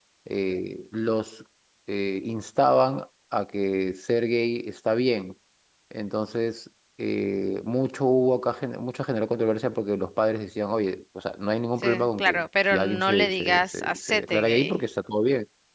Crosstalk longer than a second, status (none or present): present